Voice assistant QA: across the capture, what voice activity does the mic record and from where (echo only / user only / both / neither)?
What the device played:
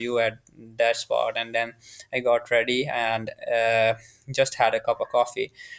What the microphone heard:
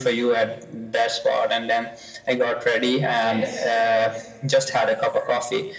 both